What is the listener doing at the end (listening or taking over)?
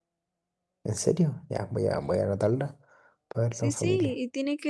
taking over